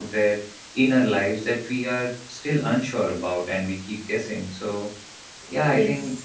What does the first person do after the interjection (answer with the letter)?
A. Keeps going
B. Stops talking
A